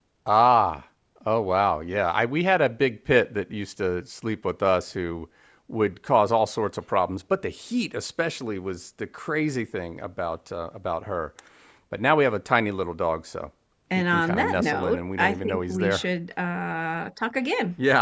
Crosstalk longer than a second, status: present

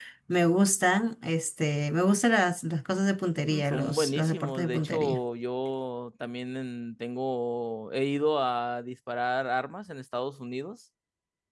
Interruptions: present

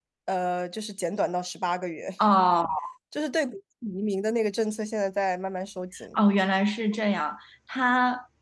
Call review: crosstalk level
none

